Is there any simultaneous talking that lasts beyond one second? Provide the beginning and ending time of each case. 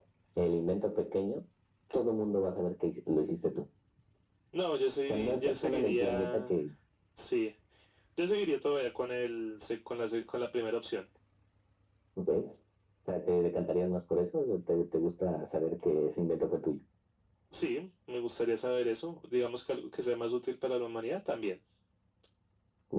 5.1-6.5

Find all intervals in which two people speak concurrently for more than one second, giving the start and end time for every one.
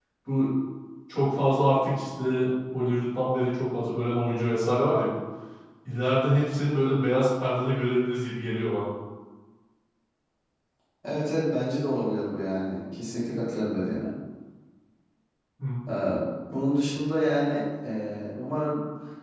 none

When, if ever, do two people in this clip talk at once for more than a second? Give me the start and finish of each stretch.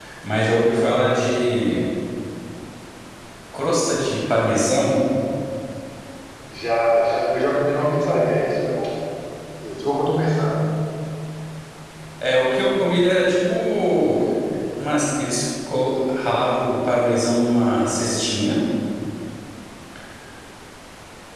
none

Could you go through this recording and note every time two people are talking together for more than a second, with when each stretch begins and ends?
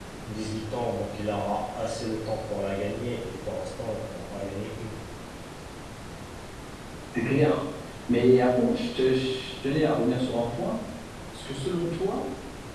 none

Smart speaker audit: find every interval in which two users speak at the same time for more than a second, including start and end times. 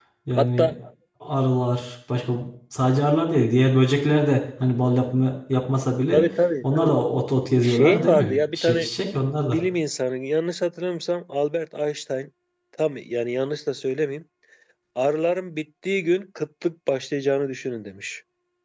7.6-8.9

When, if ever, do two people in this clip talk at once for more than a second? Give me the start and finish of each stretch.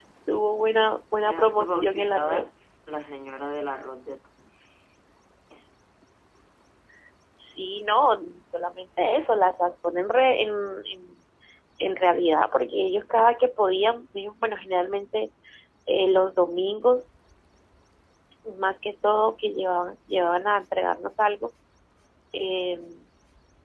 1.2-2.5

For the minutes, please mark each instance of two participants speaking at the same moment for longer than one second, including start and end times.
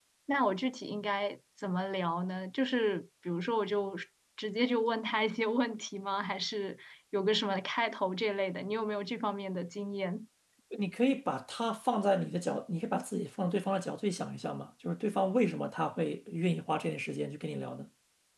none

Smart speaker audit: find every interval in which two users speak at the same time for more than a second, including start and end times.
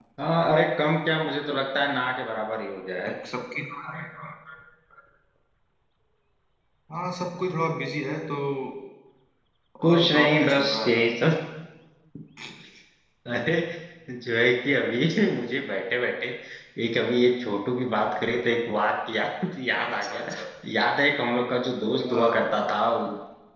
9.8-11.1

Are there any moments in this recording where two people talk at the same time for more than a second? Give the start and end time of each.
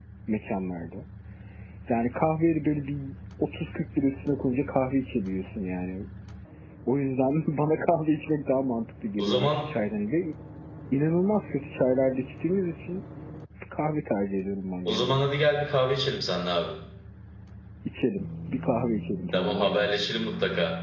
none

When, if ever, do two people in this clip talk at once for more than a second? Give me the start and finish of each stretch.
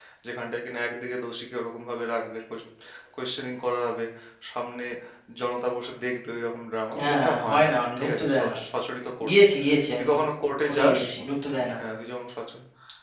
7.0-8.6

